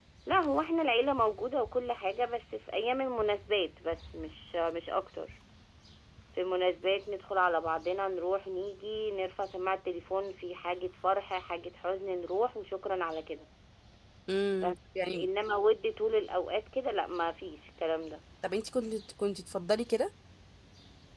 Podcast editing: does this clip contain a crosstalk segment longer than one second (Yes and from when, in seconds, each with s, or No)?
No